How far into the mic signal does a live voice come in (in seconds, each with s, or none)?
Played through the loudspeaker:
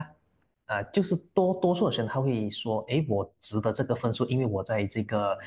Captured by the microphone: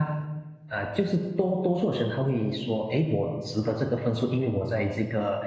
none